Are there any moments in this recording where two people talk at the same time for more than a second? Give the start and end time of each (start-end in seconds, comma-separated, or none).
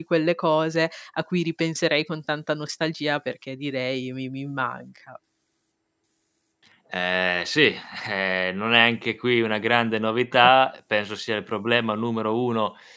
none